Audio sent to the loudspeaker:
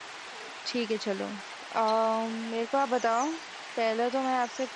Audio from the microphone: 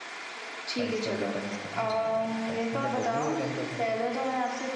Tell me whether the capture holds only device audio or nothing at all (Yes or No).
No